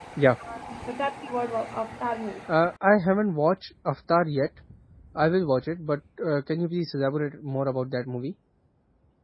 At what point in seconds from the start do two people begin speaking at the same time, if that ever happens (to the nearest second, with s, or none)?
none